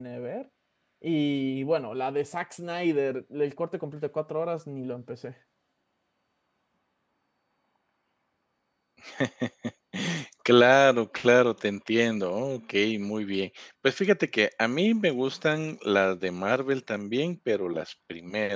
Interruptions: none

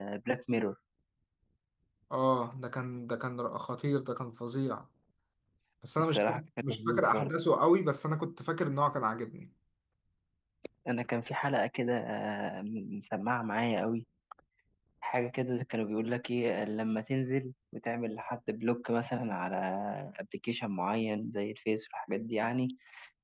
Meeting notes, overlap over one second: present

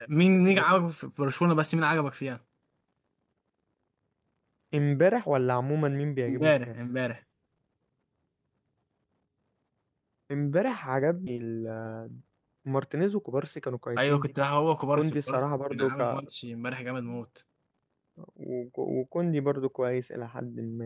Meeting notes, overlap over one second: present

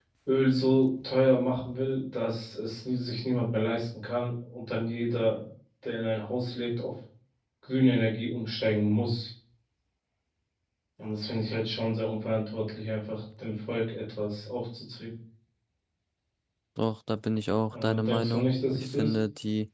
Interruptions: present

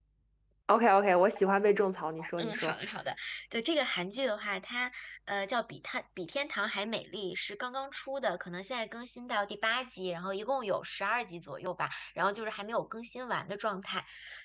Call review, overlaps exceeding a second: none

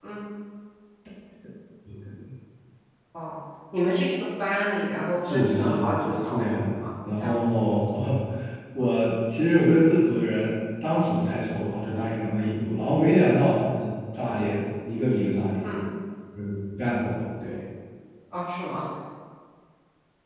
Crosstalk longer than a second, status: present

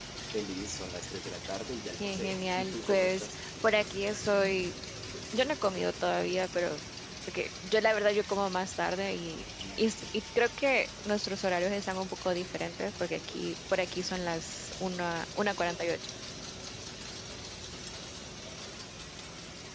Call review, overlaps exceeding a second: present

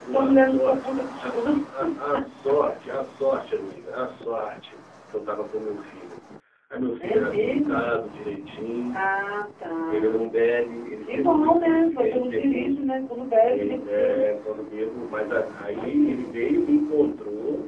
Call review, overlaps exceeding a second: present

